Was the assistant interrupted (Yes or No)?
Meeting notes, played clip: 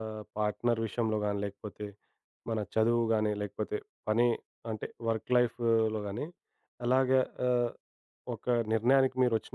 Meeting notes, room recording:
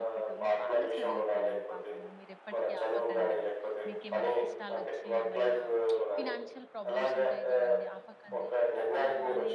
Yes